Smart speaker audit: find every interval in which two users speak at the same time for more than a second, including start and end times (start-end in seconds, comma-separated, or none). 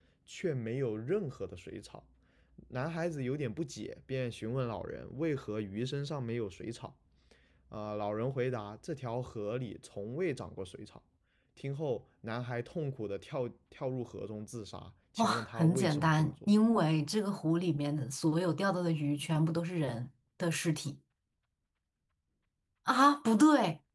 15.2-16.5